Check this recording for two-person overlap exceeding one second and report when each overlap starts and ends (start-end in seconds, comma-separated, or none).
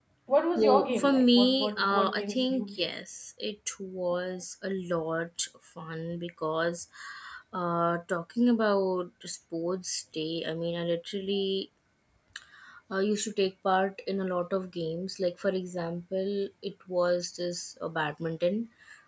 0.6-3.0